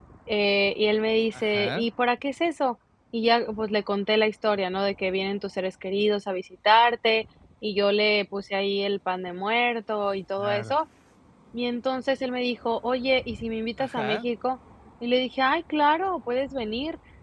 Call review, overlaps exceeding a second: none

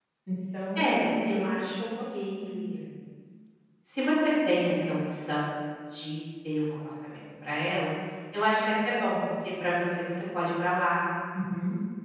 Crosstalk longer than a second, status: present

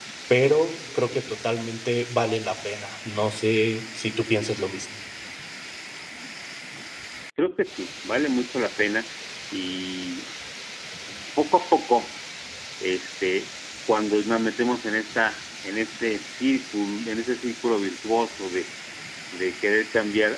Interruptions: none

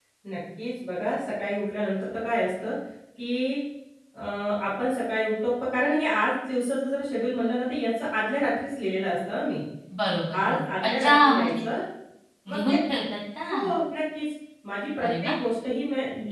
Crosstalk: present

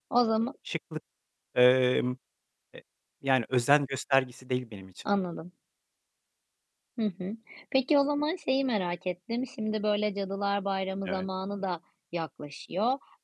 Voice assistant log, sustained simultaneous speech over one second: none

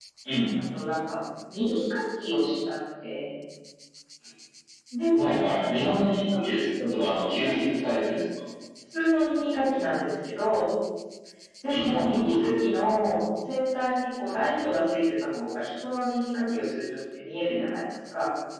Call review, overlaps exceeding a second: none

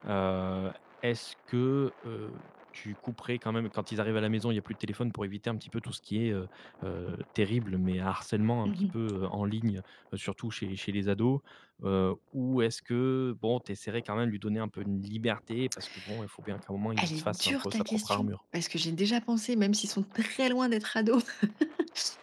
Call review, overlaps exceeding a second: present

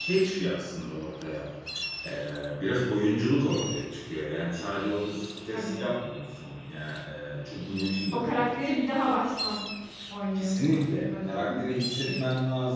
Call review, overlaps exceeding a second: present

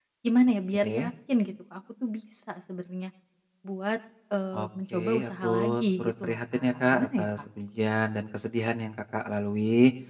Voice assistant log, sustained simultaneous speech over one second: present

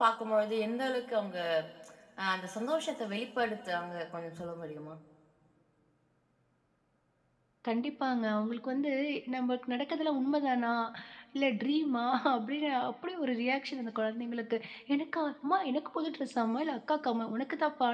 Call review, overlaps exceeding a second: none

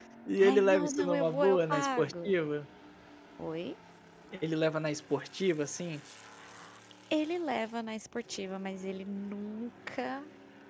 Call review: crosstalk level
present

